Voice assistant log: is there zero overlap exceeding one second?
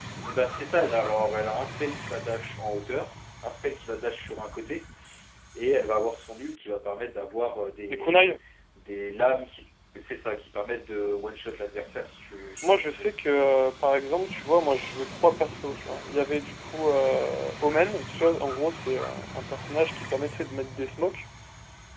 Yes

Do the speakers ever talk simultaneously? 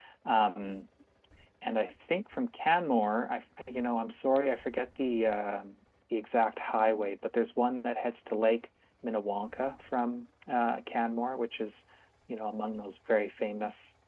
No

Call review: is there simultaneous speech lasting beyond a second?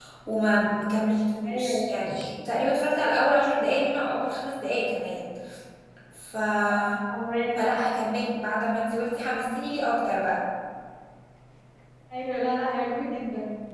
No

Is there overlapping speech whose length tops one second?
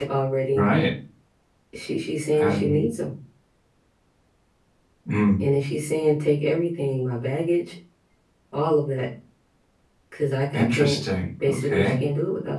Yes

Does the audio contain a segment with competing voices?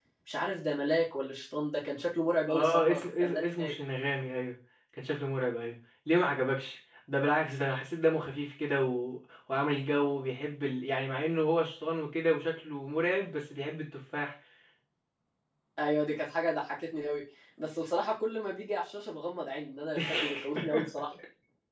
Yes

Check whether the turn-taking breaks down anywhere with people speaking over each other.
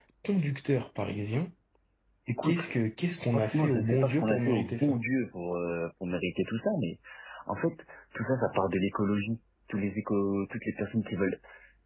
Yes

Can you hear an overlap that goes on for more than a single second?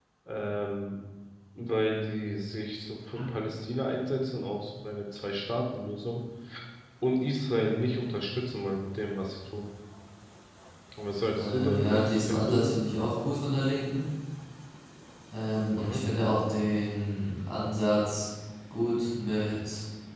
Yes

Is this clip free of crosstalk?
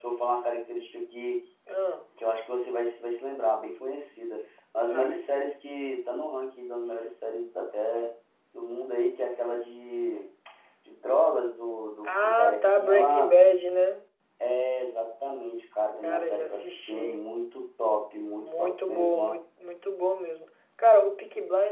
No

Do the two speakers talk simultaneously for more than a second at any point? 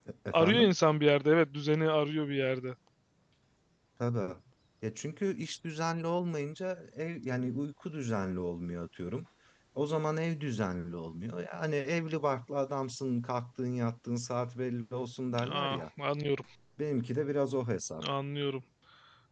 No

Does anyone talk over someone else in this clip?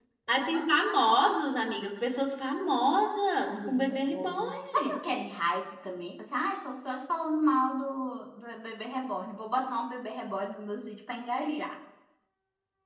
Yes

